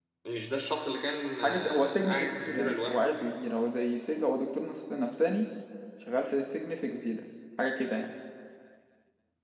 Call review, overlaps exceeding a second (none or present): present